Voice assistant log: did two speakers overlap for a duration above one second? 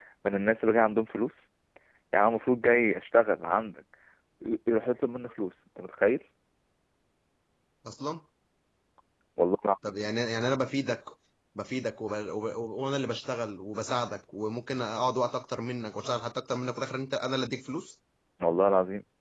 No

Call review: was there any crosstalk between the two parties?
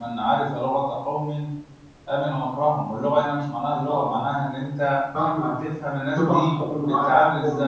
Yes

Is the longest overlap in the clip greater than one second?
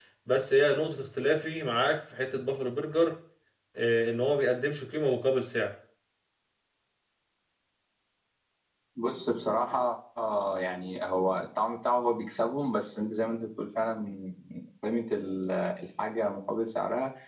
No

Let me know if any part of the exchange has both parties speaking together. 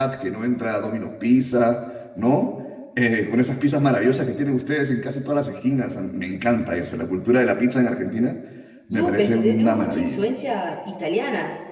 Yes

